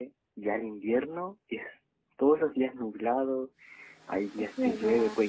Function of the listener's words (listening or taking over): listening